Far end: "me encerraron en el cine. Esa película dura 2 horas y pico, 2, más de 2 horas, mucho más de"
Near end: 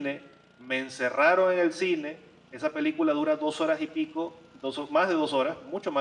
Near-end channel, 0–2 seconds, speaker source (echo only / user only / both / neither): echo only